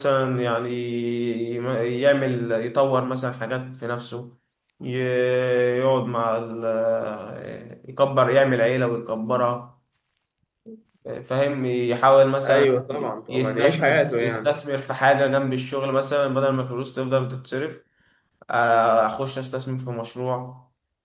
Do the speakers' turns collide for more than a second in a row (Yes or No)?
Yes